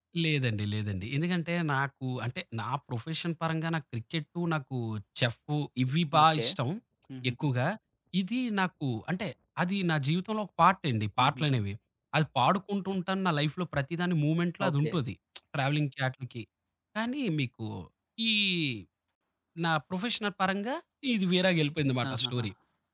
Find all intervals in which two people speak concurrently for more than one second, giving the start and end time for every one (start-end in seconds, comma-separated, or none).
none